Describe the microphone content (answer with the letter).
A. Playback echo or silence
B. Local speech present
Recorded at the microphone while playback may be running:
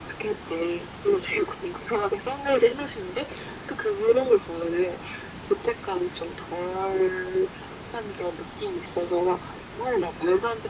A